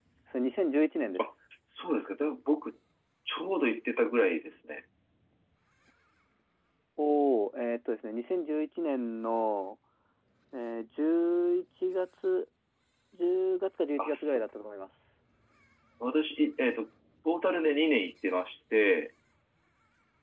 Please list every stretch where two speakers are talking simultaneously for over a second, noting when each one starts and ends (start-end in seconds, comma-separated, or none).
none